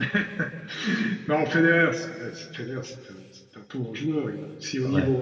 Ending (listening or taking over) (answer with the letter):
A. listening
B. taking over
A